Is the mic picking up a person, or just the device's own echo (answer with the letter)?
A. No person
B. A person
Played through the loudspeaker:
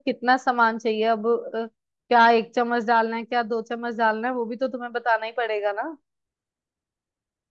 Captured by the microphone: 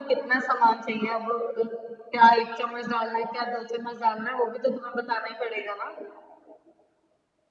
A